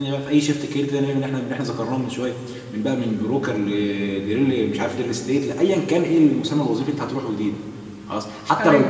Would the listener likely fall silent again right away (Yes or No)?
No